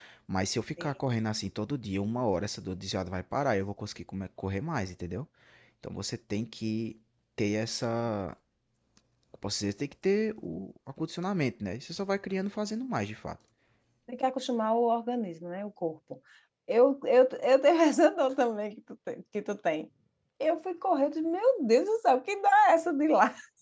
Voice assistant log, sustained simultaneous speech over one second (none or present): none